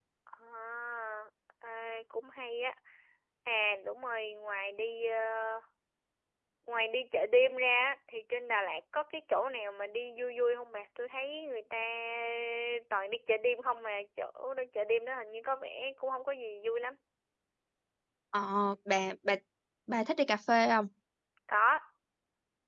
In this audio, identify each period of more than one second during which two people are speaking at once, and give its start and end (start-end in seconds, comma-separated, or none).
none